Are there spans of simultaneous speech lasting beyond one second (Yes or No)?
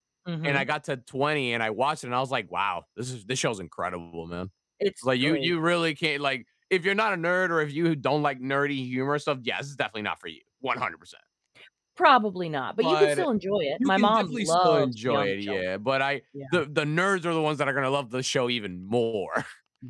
Yes